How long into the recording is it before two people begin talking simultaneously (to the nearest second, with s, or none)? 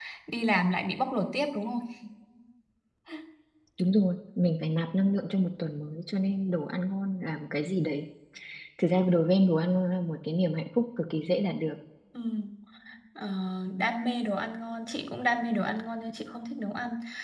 none